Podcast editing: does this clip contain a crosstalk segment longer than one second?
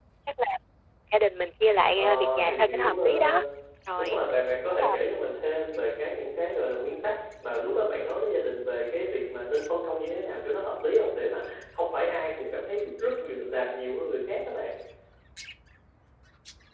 Yes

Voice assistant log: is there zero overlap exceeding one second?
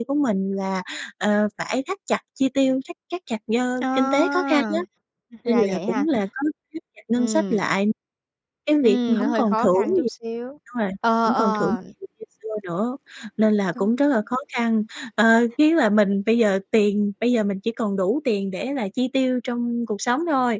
No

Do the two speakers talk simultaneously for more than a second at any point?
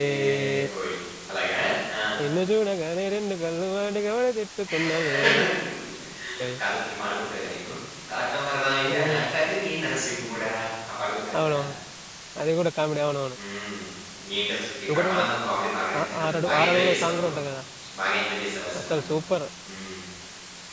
Yes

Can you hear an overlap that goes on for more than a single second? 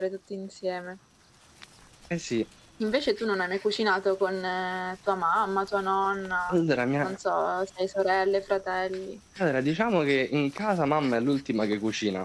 No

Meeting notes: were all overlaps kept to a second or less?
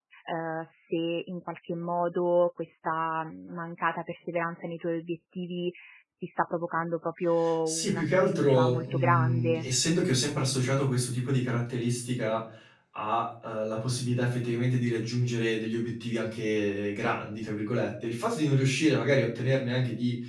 No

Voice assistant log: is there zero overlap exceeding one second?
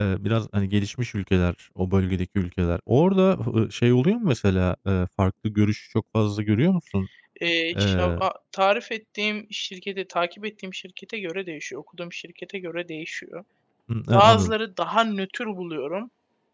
Yes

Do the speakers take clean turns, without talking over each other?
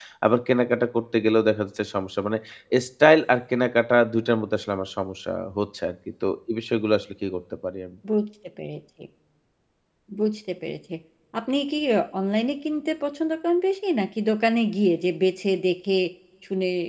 Yes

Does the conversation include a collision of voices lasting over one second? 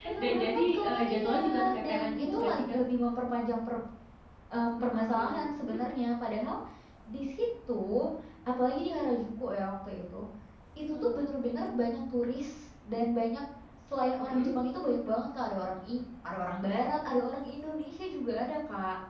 Yes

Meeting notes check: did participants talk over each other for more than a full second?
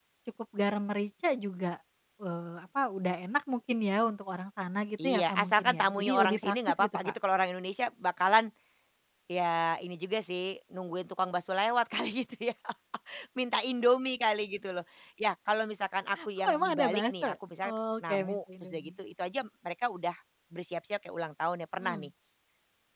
Yes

